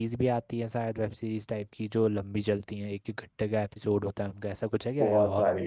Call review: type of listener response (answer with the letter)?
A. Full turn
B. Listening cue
A